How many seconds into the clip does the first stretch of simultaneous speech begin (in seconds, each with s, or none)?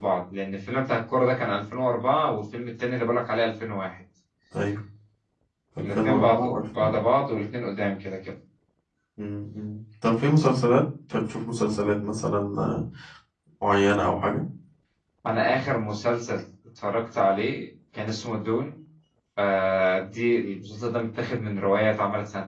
5.8 s